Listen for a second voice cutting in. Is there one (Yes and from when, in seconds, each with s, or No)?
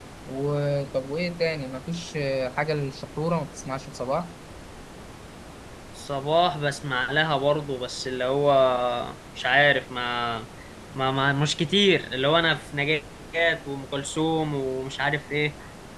No